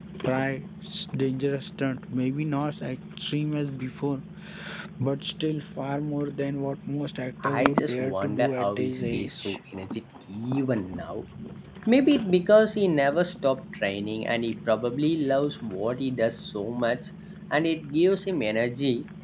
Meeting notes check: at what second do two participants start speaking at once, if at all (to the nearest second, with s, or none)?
7 s